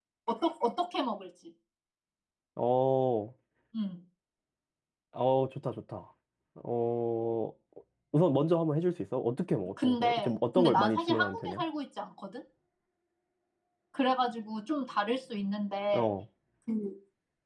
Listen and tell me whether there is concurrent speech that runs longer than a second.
Yes, from 9.8 s

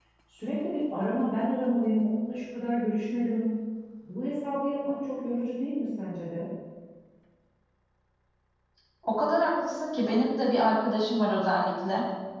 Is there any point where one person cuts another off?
No

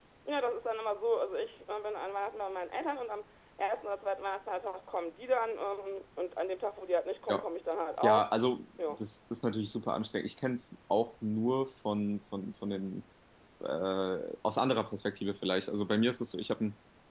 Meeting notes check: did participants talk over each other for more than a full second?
No

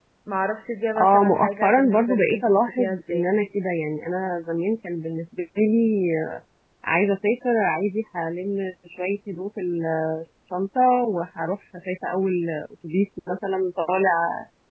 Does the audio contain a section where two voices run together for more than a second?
Yes, from 0.9 s

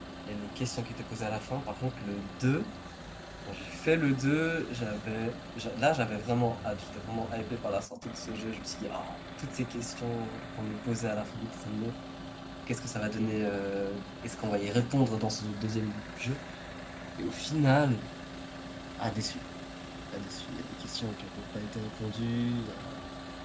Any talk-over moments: No

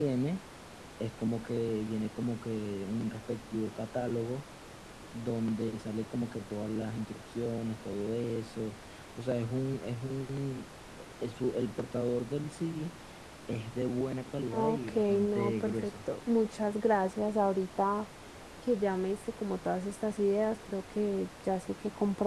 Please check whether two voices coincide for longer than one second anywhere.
Yes, from 14.5 s

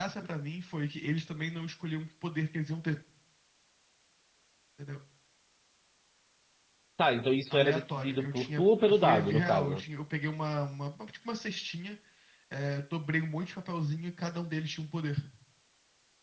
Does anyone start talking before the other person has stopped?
Yes, from 7.5 s

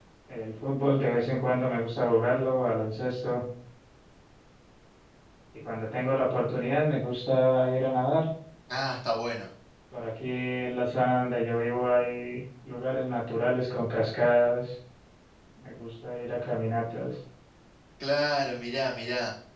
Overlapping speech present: No

